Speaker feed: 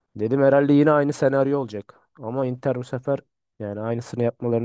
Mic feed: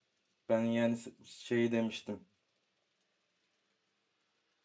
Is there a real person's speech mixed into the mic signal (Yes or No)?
Yes